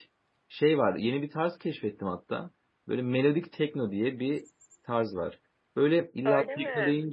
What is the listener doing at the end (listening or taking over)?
listening